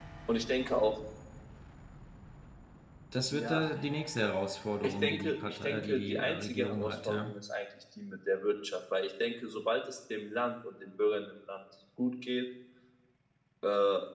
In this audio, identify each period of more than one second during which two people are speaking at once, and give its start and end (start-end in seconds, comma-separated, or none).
4.8-7.3